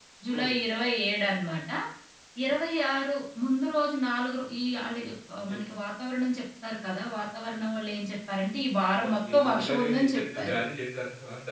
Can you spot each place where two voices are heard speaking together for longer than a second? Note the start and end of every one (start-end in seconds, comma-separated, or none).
9.1-10.6